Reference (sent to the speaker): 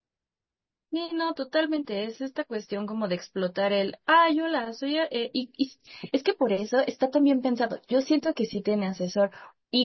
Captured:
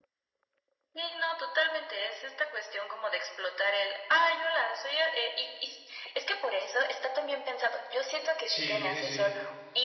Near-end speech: present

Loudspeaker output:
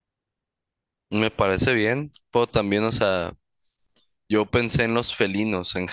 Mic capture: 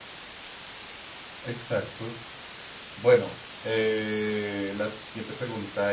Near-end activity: present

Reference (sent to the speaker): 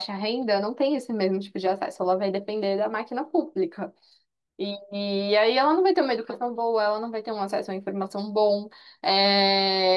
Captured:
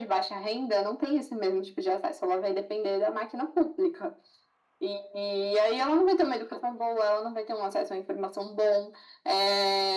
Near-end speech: none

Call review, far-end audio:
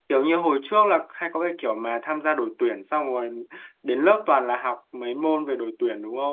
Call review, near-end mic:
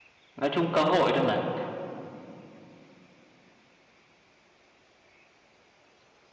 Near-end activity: present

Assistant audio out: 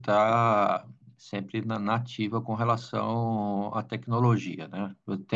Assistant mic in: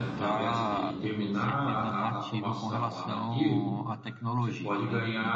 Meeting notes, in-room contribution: present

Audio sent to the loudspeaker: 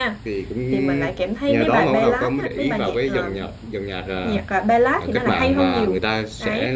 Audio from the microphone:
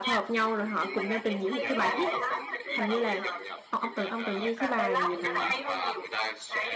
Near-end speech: present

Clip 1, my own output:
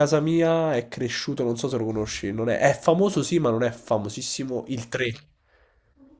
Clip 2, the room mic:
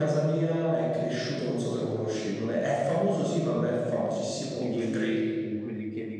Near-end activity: present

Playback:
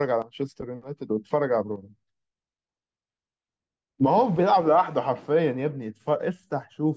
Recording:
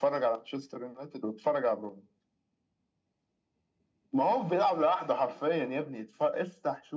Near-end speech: none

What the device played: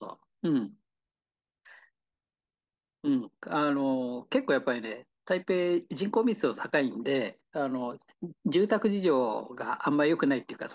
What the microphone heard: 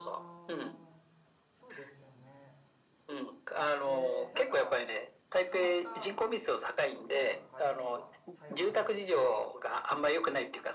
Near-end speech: present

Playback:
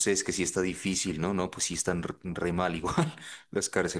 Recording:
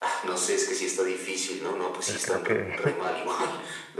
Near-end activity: present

